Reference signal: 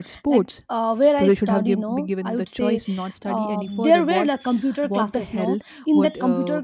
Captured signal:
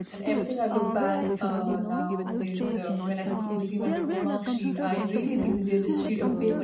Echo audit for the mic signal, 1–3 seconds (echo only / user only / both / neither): both